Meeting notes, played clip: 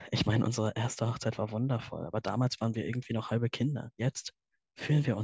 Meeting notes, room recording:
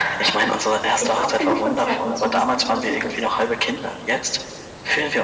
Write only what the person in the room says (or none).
Ich war auf genug Konzerten, um zu wissen, wie man sich durchsetzt.